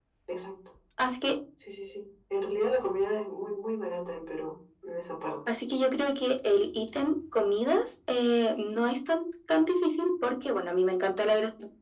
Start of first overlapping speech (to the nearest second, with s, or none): none